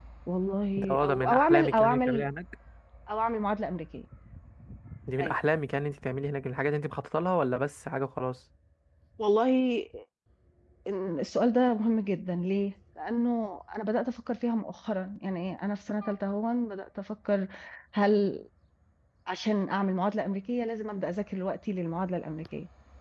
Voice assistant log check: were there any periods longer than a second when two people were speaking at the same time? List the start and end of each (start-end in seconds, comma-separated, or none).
0.8-2.3